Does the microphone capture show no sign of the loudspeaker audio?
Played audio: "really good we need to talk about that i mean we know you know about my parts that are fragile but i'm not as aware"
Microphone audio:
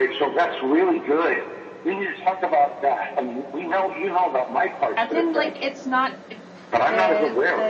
No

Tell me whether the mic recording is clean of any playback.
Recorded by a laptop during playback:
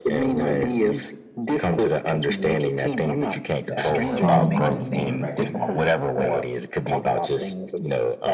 No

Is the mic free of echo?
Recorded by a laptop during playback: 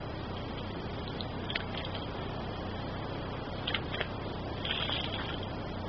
Yes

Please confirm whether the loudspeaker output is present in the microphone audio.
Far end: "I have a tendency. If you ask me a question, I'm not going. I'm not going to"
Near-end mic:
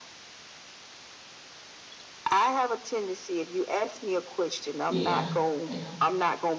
Yes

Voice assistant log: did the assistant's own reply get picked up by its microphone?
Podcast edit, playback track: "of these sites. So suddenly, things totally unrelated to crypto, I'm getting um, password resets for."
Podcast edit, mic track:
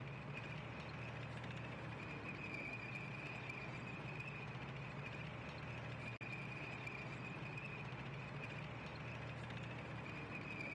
No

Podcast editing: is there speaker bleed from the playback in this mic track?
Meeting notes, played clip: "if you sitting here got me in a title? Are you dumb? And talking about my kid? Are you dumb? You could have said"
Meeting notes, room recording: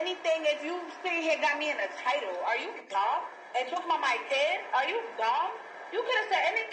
Yes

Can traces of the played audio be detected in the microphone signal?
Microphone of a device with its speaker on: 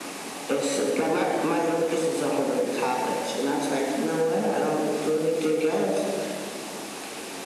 Yes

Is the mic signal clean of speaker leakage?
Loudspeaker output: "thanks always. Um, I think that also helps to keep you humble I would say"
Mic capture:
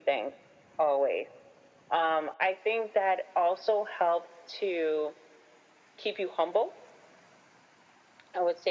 No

